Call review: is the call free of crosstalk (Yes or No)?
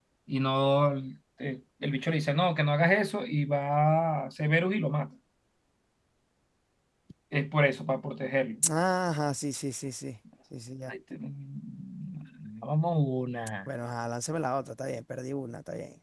Yes